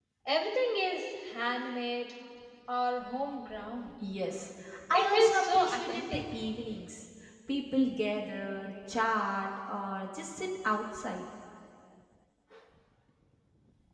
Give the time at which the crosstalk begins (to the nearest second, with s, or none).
5 s